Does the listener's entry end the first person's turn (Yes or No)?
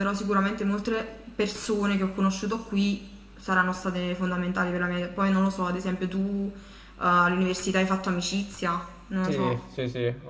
Yes